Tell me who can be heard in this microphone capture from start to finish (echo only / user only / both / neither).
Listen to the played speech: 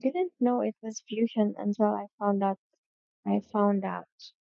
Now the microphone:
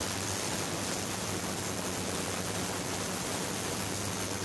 neither